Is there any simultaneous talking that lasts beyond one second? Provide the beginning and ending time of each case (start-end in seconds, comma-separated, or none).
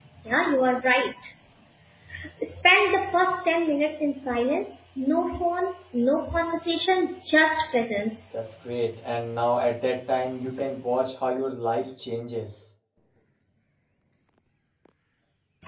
none